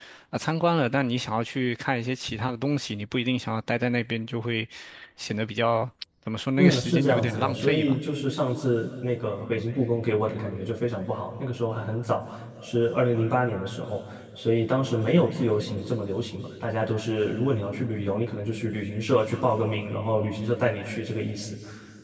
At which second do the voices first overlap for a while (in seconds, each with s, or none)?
6.6 s